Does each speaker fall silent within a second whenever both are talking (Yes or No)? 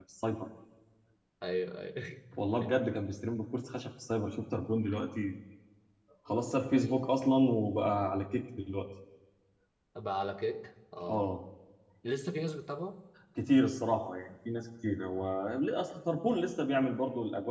Yes